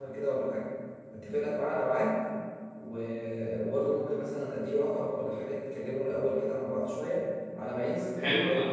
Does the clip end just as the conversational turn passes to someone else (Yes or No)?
Yes